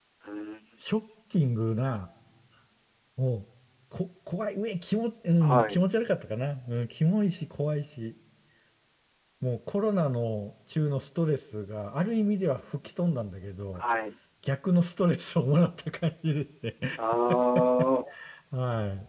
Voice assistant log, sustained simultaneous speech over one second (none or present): none